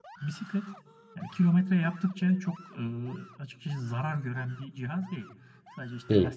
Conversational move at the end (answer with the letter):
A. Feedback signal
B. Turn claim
A